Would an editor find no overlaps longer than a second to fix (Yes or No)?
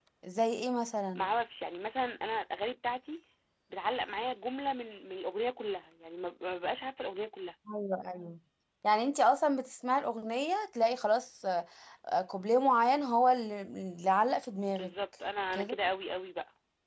Yes